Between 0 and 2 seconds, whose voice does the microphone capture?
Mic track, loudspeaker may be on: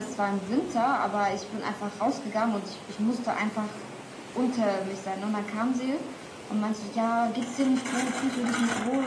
echo only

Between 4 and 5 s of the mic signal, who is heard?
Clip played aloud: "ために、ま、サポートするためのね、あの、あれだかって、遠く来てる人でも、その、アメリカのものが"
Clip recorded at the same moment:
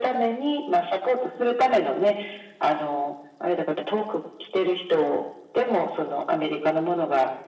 echo only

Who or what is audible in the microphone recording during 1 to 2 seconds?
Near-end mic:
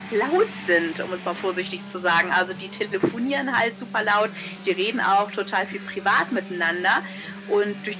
echo only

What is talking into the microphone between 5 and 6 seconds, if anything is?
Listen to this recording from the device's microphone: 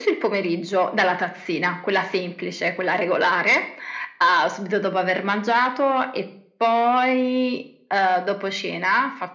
echo only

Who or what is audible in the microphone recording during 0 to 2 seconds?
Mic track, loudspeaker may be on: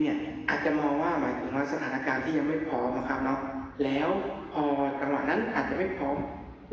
echo only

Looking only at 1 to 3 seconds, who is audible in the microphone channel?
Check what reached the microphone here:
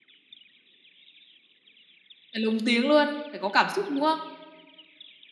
user only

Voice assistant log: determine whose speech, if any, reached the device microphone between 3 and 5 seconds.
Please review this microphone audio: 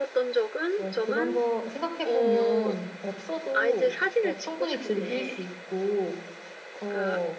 both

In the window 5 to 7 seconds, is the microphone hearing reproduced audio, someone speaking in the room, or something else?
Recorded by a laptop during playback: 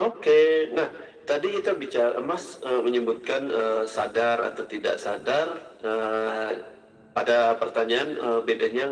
echo only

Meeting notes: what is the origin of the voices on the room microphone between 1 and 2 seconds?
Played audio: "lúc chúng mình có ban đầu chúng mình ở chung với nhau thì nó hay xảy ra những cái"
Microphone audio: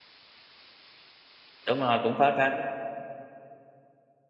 user only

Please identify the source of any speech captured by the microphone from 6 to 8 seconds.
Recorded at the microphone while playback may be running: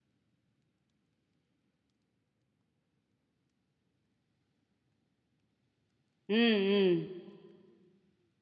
user only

